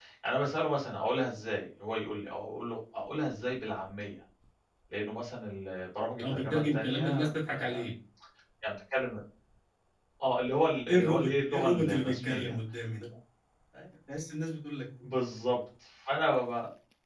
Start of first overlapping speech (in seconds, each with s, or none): 6.2 s